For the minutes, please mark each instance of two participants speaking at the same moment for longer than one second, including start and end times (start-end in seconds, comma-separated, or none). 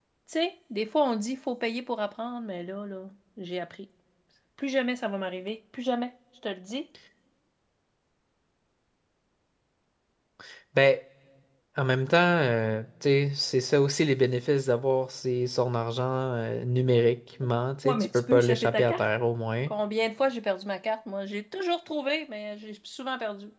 17.8-19.1